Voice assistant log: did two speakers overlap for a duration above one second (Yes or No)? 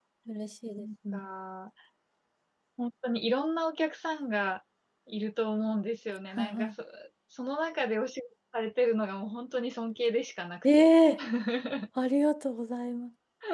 No